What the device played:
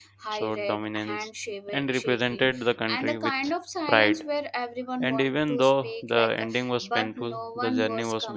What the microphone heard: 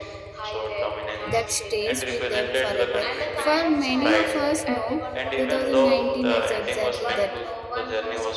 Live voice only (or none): that stays with them forever. For many of us, no, 2019 is exactly that.